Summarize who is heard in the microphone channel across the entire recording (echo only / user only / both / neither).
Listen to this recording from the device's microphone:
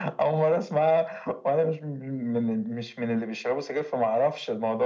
echo only